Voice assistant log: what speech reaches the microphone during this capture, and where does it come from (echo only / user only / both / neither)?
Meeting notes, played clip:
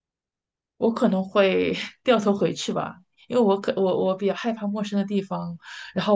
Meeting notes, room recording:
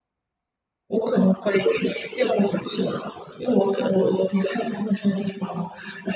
echo only